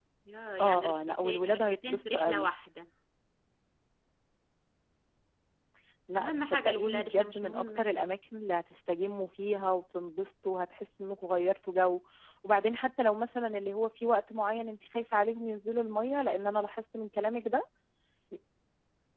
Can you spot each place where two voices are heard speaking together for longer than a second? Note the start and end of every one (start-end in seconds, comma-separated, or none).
0.6-2.5, 6.2-8.1